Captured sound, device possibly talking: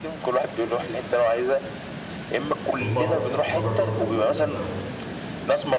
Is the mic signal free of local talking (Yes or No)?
No